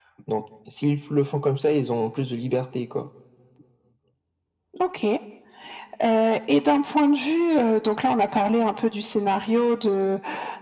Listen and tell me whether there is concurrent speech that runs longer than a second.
No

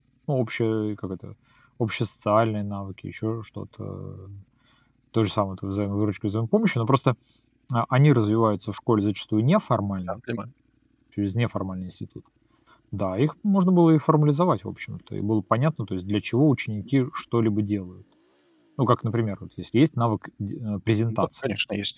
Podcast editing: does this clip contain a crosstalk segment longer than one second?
No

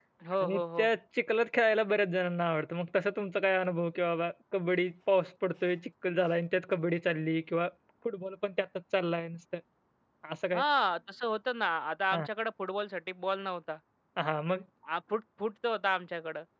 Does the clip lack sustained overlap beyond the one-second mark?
Yes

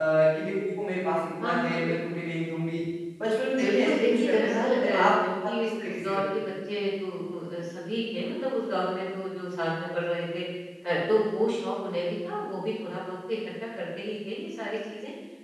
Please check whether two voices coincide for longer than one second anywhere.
Yes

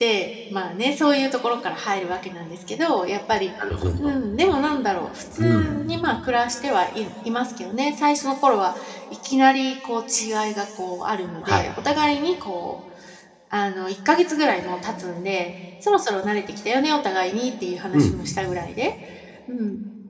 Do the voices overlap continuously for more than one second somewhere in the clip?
No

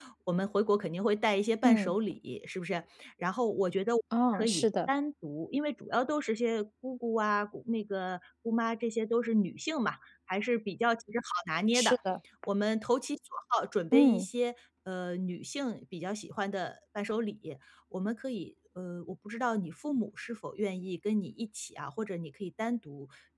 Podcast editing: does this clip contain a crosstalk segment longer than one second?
No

